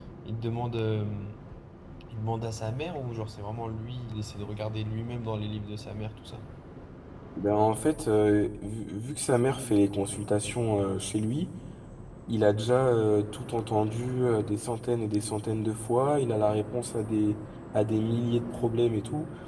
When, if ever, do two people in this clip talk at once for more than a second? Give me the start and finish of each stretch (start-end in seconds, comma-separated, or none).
none